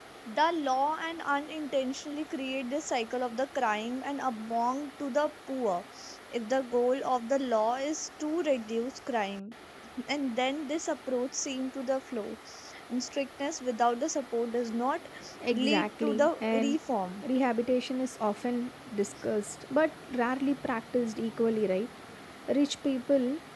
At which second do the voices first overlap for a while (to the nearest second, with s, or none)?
16 s